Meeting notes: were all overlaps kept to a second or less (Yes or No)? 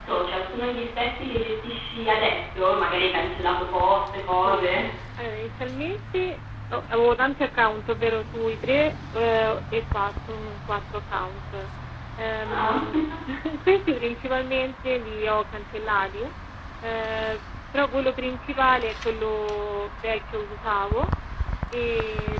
Yes